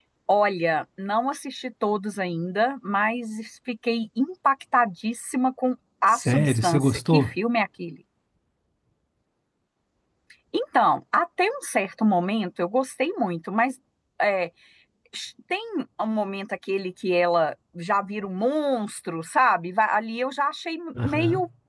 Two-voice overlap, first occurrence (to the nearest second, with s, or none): 6 s